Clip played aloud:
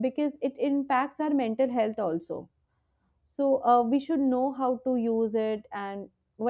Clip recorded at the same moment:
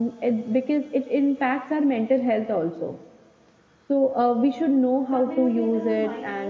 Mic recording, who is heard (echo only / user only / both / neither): both